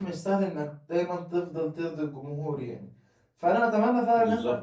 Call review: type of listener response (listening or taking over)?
listening